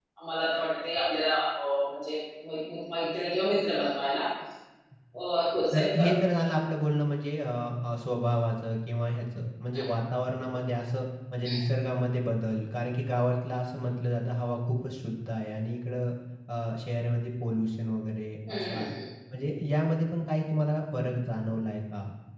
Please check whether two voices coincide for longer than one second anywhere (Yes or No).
No